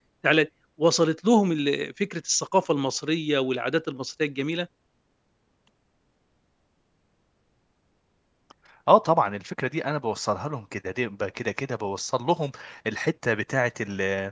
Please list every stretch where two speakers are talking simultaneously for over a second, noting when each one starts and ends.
none

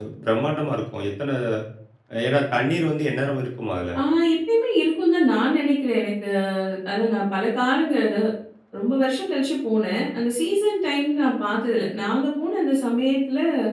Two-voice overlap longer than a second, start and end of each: none

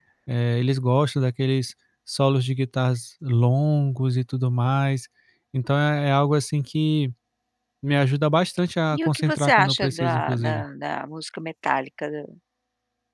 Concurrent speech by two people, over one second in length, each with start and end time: 9.0-10.6

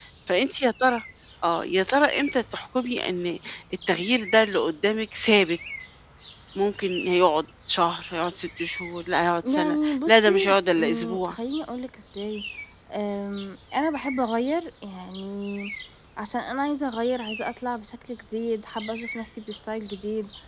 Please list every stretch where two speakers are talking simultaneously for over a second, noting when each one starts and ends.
9.4-11.4

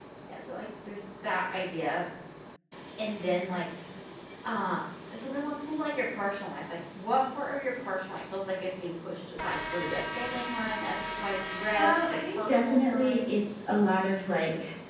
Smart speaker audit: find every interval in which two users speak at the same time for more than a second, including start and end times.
11.8-13.3

